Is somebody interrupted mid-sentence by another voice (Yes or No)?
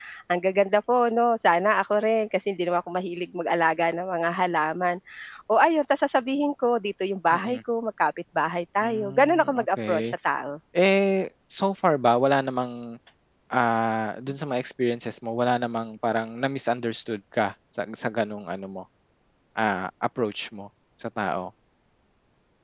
Yes